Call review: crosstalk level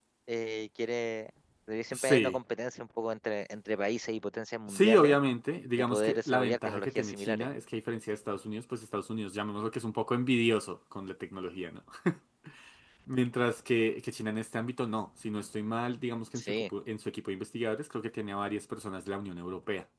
present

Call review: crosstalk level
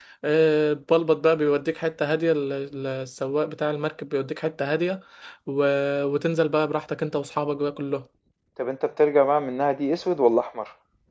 none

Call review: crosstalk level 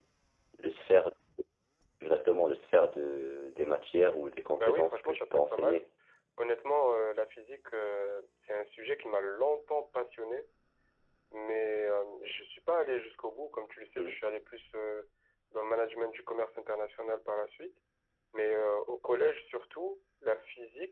present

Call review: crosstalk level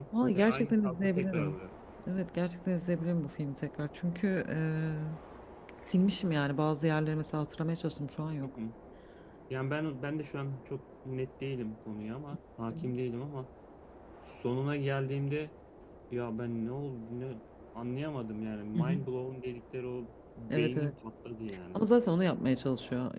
present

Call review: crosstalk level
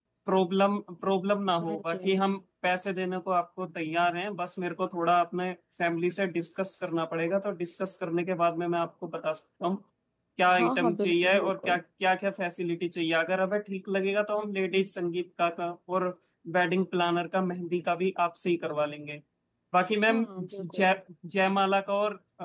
present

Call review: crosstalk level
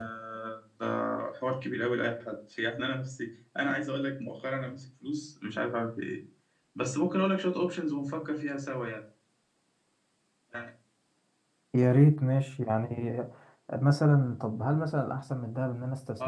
none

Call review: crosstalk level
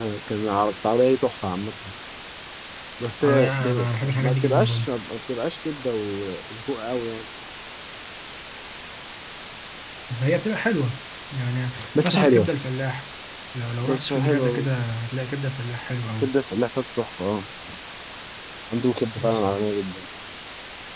present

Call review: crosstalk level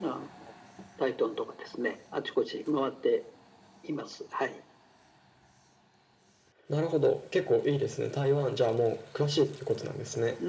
none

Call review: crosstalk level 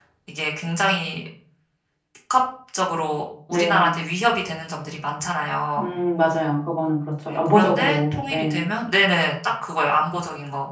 present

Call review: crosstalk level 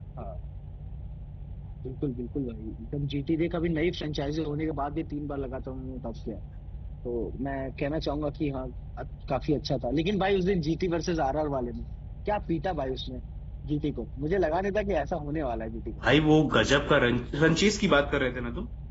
none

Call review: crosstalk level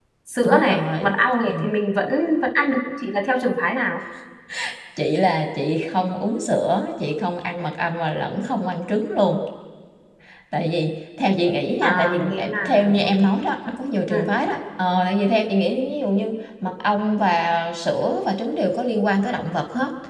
present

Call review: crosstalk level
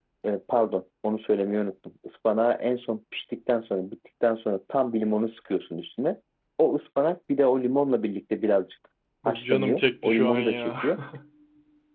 present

